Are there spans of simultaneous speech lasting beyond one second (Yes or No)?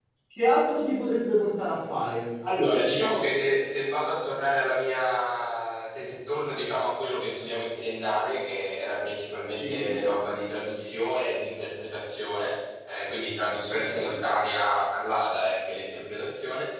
No